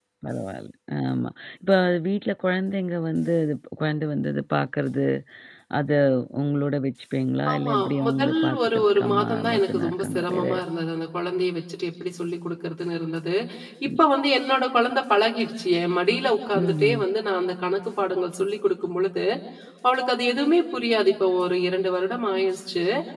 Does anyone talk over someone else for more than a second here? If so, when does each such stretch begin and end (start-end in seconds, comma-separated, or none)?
7.5-10.4